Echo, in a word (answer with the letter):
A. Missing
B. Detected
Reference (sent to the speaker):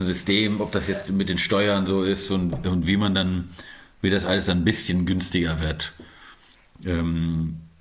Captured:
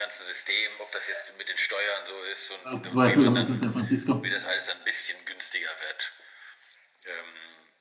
B